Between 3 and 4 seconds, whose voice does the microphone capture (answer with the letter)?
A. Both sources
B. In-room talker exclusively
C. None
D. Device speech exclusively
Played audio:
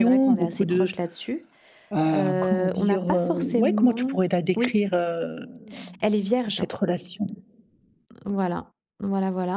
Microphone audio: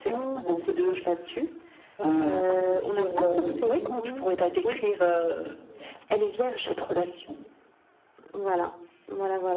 D